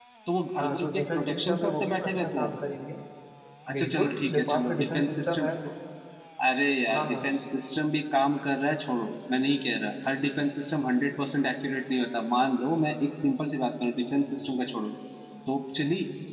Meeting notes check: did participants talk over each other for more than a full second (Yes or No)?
Yes